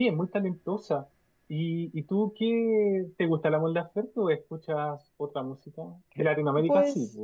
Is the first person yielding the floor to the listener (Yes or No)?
Yes